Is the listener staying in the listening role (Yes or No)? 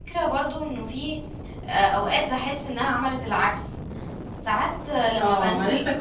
No